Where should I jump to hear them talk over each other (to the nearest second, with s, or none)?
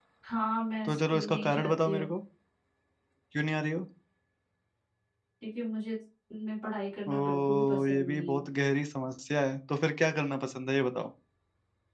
1 s